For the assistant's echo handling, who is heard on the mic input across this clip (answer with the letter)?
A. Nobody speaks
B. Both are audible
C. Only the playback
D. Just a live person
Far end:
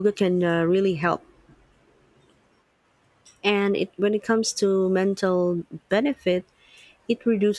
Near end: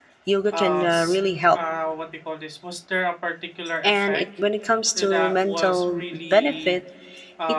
B